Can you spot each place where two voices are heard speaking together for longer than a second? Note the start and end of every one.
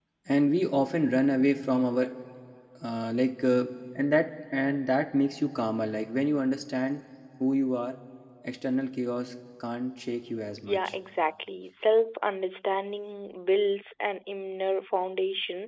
none

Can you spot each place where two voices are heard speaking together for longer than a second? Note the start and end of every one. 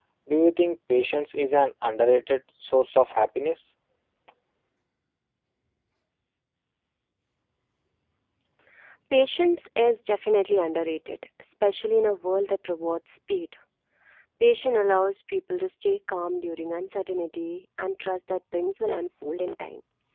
none

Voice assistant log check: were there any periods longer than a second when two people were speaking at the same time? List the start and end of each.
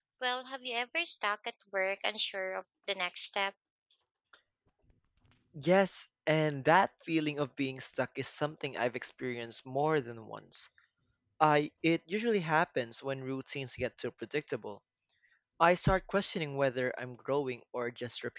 none

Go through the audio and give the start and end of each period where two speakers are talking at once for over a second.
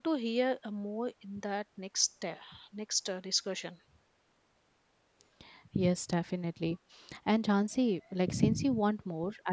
none

